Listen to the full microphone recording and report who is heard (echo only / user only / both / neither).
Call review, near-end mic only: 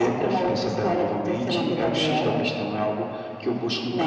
echo only